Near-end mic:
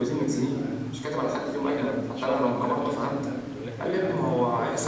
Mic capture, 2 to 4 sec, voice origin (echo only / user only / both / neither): both